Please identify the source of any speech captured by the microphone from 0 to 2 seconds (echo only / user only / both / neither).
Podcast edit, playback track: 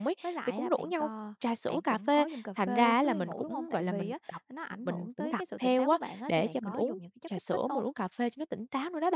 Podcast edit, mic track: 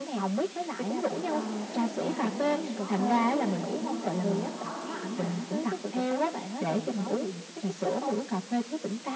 both